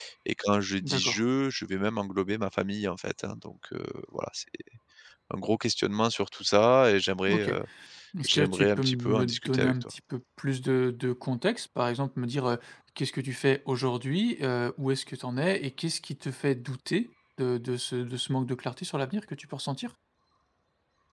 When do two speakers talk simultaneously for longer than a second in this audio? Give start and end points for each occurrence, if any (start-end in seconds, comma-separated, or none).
8.2-9.9